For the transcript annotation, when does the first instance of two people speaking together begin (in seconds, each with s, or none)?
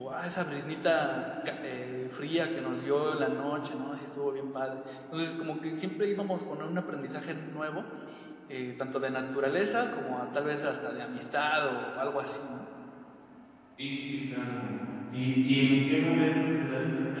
none